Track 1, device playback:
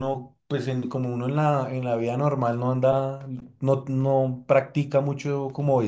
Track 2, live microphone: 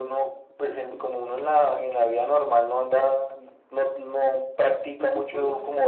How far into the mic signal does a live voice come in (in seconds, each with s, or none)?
5.0 s